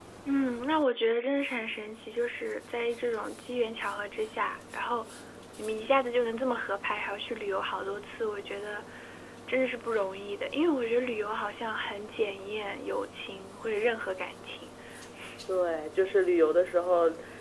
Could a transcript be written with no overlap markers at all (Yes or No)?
Yes